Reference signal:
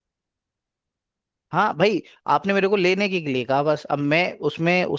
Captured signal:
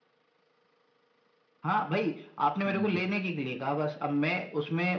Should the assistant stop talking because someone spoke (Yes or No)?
Yes